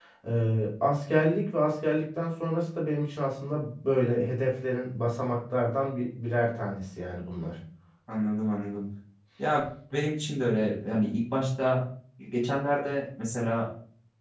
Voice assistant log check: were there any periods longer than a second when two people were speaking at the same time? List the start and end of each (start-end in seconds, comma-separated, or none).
none